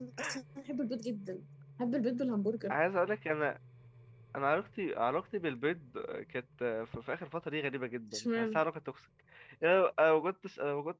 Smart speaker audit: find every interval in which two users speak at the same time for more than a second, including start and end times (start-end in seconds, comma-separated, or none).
none